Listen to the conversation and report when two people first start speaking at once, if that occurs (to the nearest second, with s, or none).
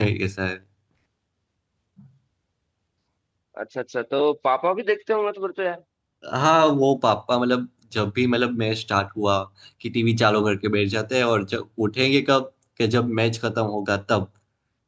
none